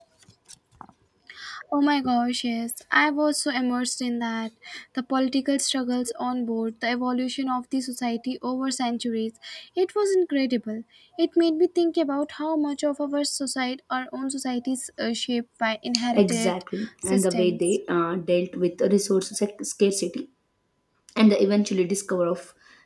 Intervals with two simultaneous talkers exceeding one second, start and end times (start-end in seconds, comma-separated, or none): 16.1-17.6